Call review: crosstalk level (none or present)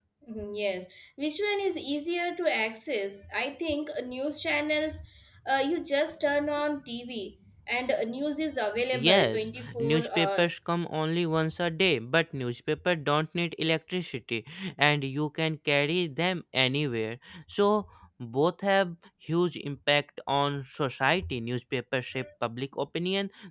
present